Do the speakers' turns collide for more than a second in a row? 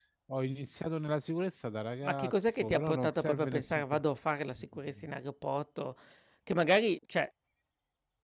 Yes, from 2.0 s

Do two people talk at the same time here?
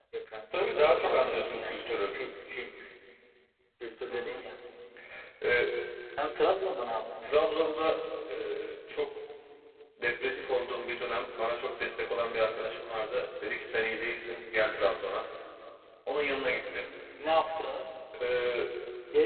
Yes, from 0.7 s

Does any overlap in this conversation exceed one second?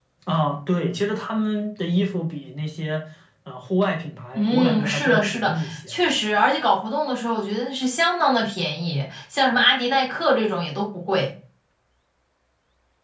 Yes, from 4.3 s

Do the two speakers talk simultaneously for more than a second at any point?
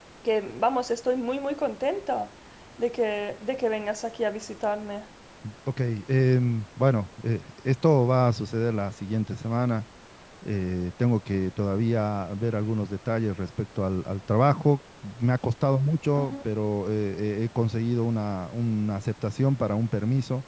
No

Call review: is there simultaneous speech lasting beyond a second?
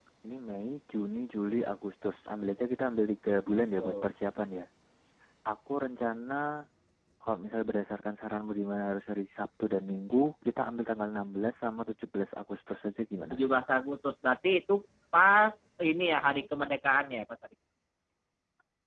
No

